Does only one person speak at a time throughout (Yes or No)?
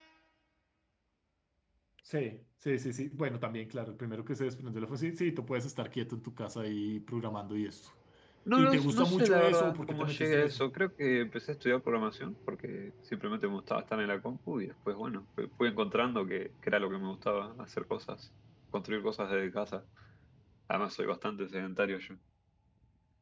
No